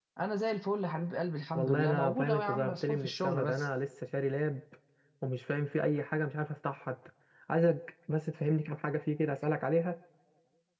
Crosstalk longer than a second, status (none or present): present